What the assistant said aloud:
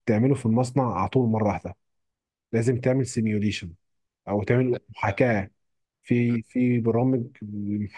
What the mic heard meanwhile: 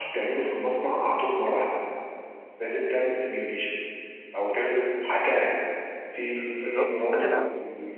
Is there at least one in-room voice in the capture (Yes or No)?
Yes